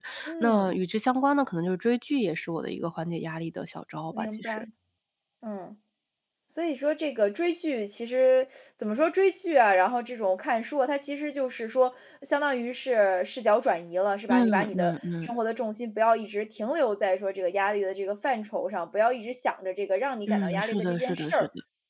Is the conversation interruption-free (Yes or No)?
No